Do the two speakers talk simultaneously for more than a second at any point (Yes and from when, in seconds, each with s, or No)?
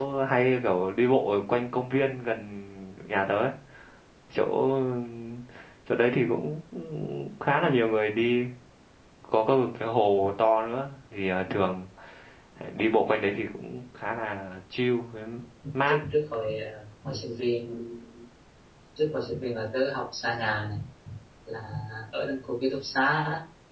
No